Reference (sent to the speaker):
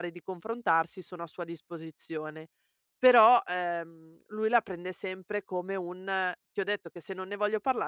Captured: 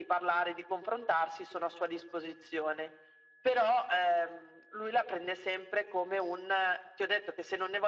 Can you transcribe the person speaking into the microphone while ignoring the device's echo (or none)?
none